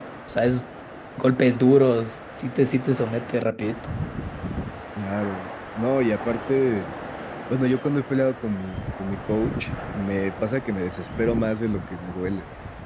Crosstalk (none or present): none